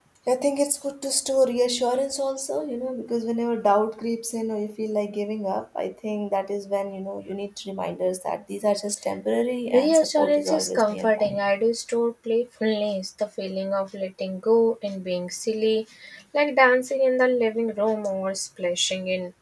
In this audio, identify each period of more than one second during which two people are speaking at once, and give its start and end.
9.7-11.3

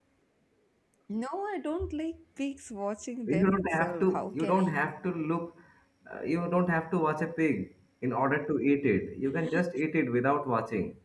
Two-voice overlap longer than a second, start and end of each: 3.3-4.7

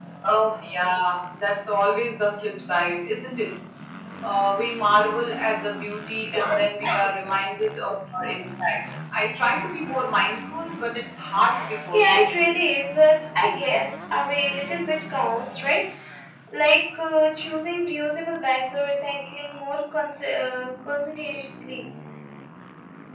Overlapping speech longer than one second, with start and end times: none

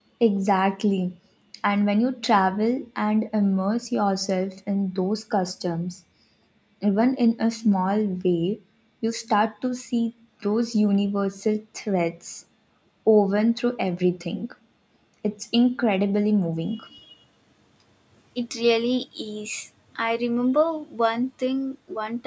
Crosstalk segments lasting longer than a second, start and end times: none

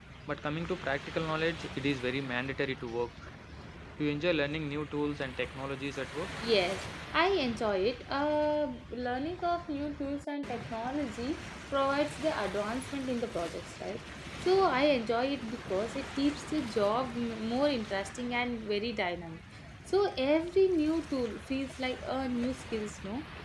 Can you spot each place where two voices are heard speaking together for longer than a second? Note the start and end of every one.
none

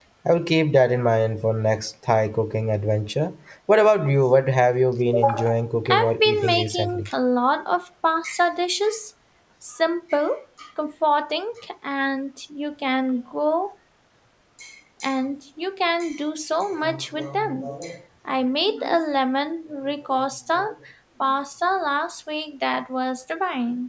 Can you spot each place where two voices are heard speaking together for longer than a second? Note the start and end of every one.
5.9-7.1

